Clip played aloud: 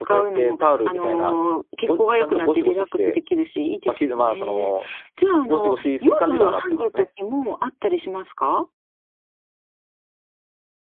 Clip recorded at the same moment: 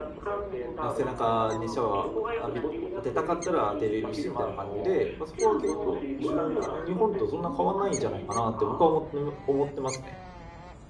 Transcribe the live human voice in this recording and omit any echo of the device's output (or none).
あ、背中にシャワー浴び当てたかったら当てれるしみたいな感じで、まあ、そこは結構じゅん日本とそんな変わんないんじゃないかなって僕は思って思ってますね。